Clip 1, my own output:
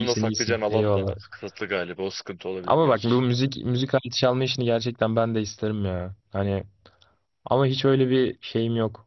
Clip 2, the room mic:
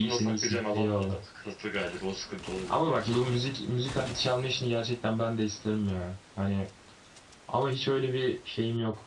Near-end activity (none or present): none